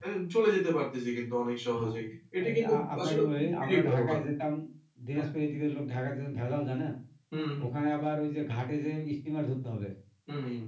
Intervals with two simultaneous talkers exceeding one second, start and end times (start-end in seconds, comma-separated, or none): 2.5-4.2